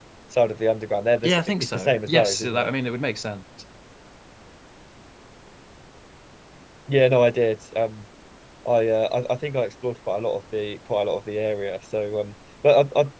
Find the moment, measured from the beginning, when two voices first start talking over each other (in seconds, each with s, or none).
1.2 s